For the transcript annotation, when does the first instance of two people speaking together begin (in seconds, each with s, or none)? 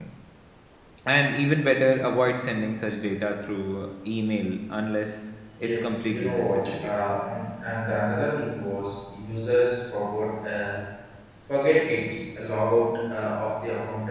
5.6 s